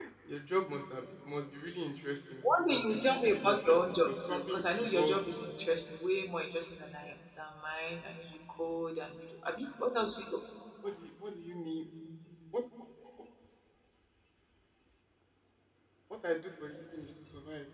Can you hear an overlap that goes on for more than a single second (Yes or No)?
Yes